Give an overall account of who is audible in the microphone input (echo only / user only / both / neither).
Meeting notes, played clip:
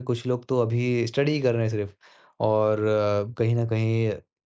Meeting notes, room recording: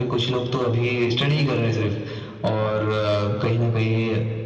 echo only